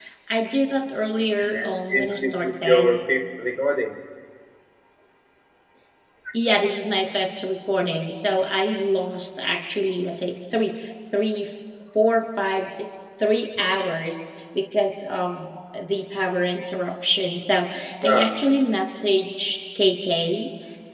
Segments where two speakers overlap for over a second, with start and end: 1.4-3.0

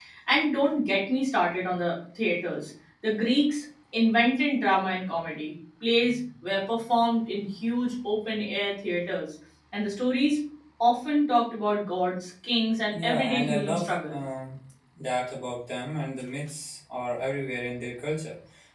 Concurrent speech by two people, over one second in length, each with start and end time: 12.9-14.2

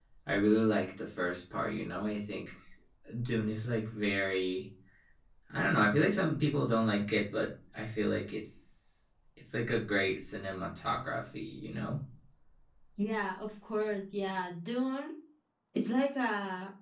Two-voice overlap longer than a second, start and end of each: none

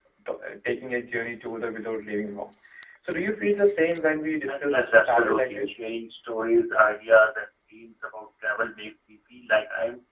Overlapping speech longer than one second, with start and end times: 4.5-5.7

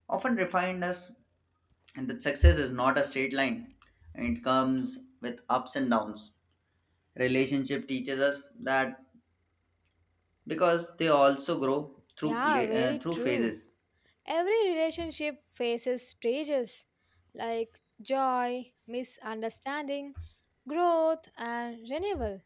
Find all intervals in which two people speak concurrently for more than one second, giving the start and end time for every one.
12.2-13.5

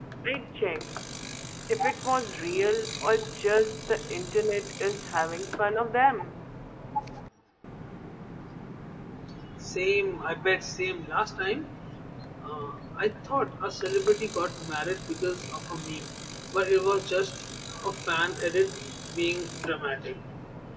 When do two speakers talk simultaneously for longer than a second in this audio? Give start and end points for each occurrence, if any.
none

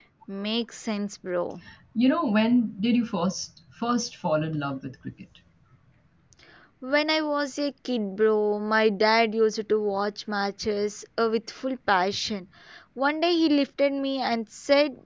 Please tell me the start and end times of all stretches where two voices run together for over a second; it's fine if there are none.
none

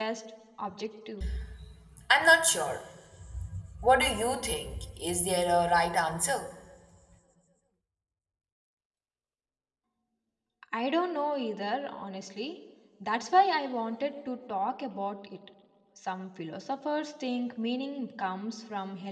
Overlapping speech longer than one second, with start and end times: none

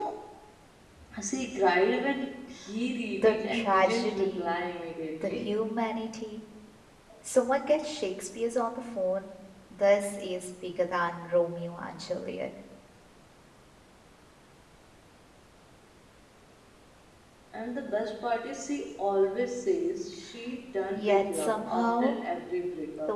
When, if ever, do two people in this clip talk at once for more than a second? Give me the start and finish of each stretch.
3.2-4.5, 20.9-22.2

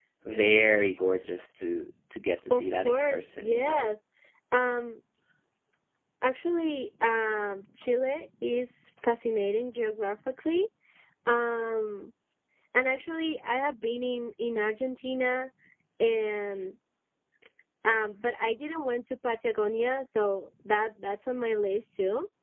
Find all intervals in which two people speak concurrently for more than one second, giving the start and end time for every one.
2.5-3.9

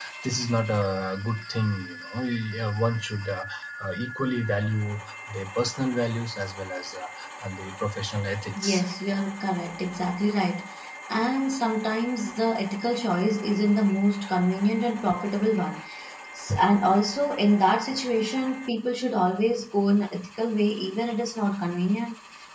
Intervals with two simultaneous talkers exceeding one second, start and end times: none

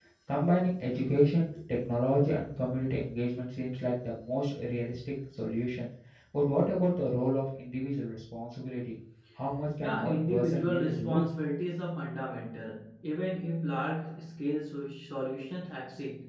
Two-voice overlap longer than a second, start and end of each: 9.8-11.3

